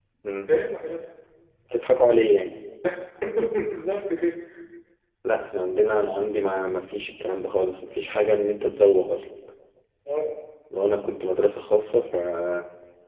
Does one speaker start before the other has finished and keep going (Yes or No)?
No